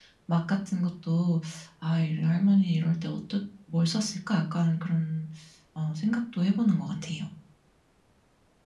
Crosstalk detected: No

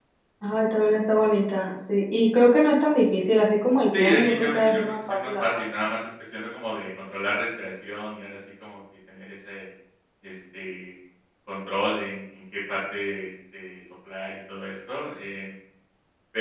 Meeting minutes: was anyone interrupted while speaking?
Yes, from 3.9 s

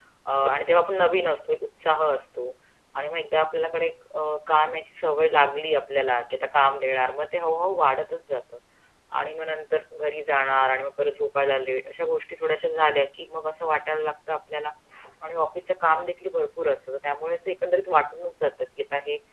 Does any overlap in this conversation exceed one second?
No

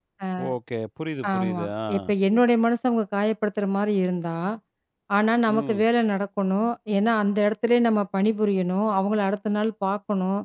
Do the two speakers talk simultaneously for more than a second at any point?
No

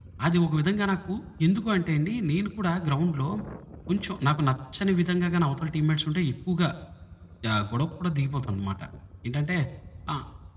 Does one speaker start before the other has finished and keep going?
No

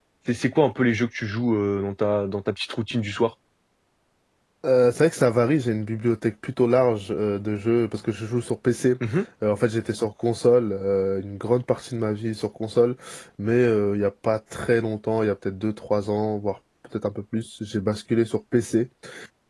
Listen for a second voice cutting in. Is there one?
No

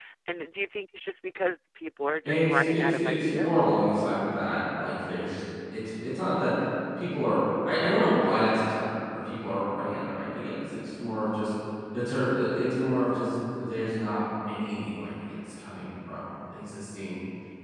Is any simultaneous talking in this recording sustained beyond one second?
Yes, from 2.2 s

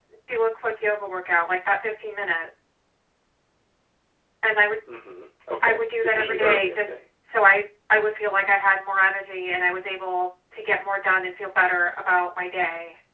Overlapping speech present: Yes, from 5.6 s

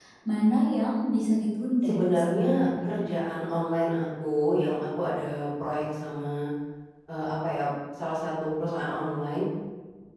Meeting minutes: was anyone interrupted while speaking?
Yes, from 1.9 s

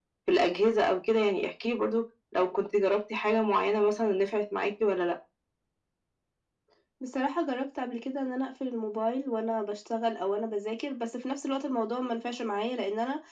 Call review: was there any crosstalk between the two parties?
No

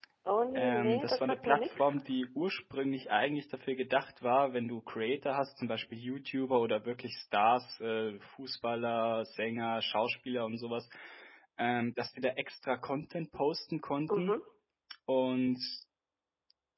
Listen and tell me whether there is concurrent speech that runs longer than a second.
Yes, from 0.6 s

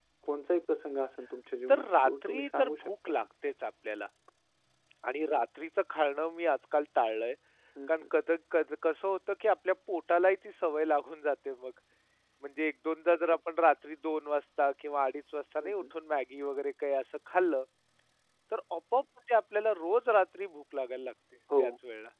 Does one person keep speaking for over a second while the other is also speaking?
Yes, from 1.7 s

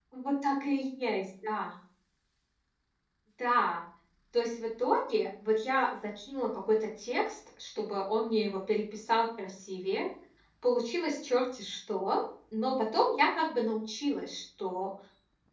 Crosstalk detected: No

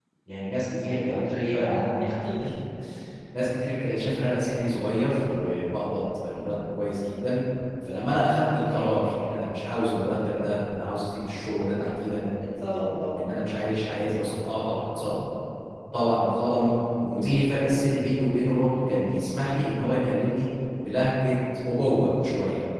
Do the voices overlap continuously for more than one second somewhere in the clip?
Yes, from 0.9 s

